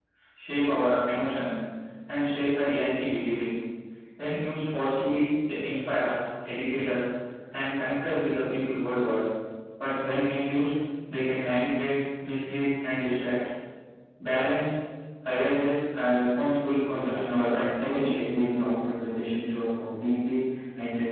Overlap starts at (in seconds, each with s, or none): 16.8 s